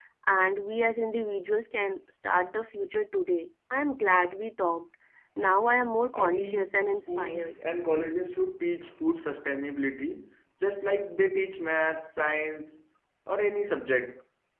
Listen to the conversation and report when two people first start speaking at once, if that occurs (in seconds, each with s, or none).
6.1 s